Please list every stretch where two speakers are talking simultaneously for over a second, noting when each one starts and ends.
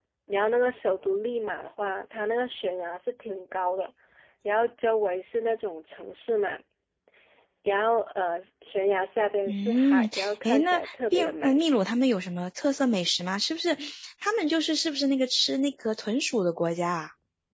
9.5-11.6

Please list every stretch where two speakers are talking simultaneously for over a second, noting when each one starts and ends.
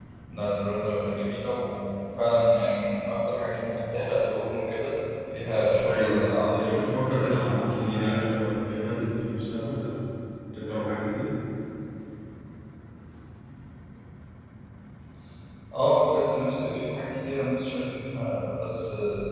5.8-8.2

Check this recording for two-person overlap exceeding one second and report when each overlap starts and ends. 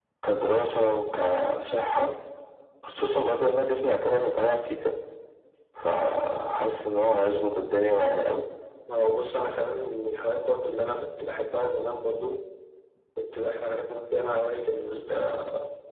none

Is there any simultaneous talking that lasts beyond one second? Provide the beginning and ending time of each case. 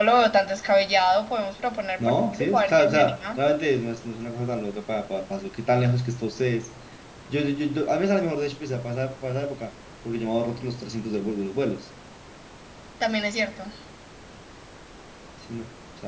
2.0-3.4

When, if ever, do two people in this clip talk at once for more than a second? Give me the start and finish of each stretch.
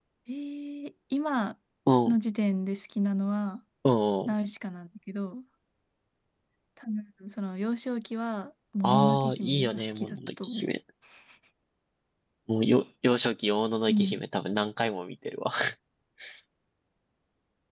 8.8-10.7

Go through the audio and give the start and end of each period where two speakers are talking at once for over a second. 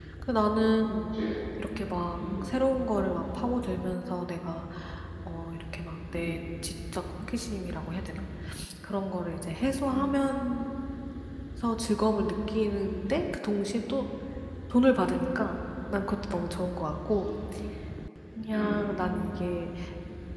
none

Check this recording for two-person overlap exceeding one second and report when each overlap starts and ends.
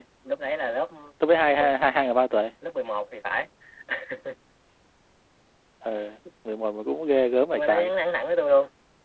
none

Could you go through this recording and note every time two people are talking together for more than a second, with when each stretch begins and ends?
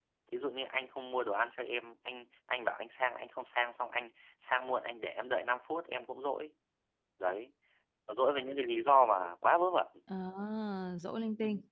none

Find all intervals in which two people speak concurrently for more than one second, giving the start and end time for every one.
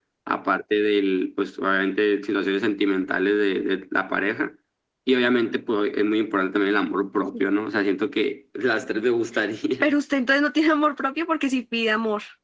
none

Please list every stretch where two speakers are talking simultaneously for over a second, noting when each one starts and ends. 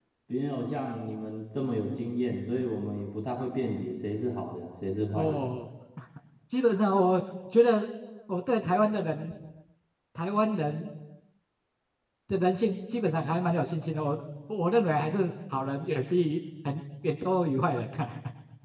none

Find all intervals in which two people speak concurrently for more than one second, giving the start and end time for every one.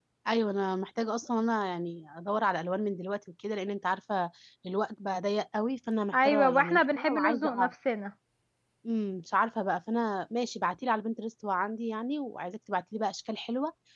6.1-7.7

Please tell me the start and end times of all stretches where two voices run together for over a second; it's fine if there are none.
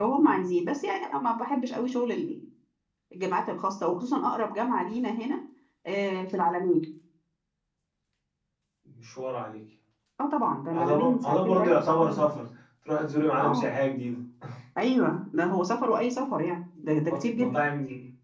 10.7-12.2

